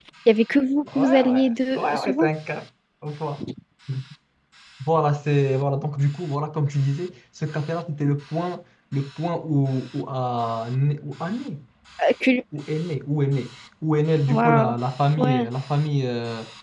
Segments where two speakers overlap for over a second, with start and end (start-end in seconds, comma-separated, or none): 0.9-2.3